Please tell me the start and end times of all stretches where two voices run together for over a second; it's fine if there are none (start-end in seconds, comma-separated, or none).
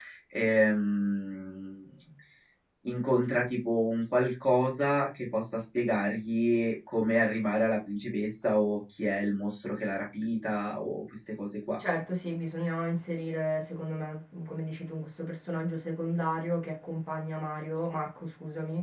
none